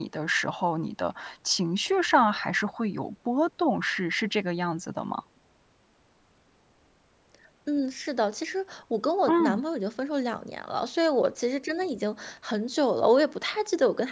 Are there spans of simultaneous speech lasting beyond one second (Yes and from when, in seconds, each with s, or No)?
No